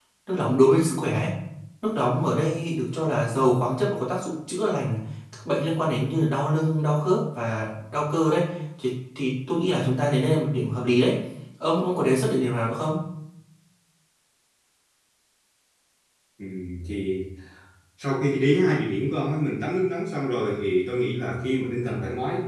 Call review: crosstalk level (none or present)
none